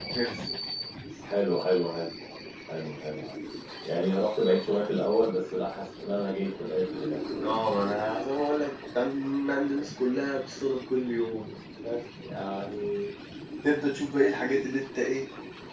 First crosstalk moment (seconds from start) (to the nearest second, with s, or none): none